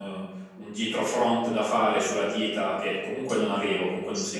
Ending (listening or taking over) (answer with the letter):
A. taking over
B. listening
B